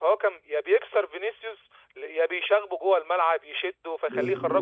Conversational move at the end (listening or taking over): taking over